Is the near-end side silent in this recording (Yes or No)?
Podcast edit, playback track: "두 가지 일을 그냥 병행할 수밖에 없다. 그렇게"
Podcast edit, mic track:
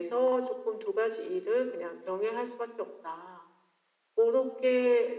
Yes